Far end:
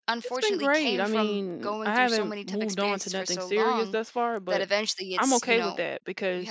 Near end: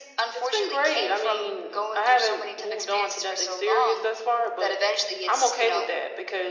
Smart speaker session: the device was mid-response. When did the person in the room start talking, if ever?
none

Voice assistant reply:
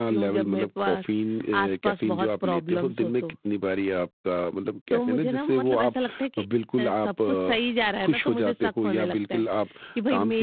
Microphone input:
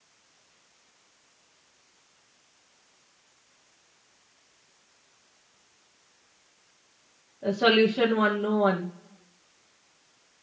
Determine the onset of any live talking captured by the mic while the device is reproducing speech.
7.4 s

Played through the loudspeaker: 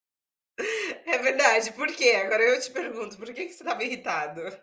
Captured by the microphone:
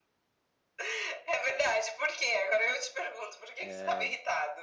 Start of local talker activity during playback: 3.6 s

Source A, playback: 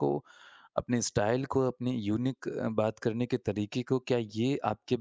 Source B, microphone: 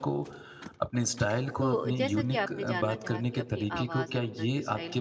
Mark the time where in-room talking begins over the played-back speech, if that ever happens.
1.6 s

